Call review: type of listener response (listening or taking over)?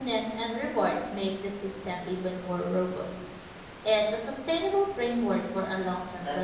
taking over